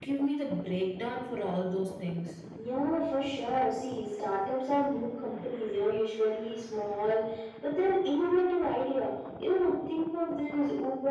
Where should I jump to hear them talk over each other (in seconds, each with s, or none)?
none